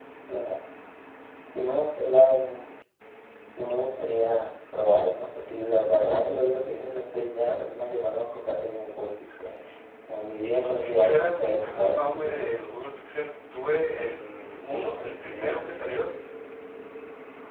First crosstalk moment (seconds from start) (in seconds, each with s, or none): 10.4 s